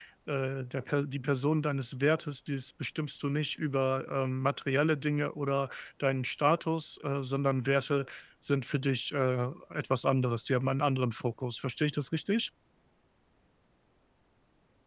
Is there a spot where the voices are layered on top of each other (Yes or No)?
No